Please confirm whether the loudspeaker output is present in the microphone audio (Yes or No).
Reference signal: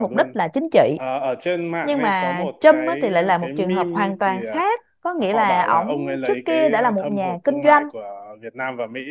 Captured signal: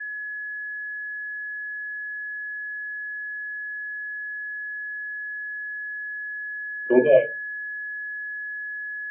No